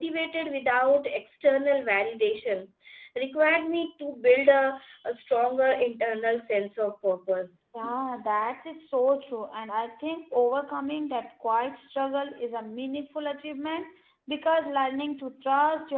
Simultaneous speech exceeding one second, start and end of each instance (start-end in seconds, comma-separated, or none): none